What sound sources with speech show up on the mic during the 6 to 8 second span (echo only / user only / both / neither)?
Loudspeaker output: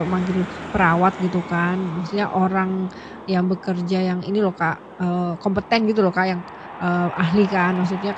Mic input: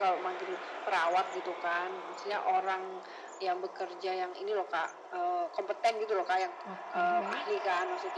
both